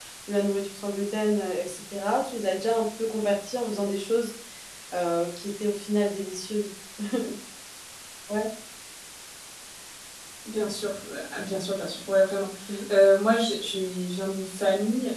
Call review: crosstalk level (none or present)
none